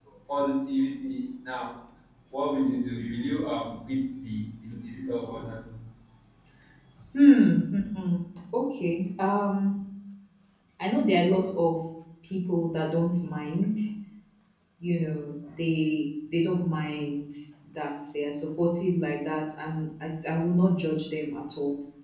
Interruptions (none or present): none